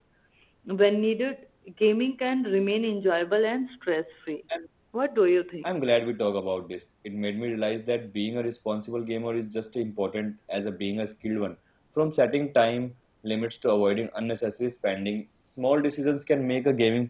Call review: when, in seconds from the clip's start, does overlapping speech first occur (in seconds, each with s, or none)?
none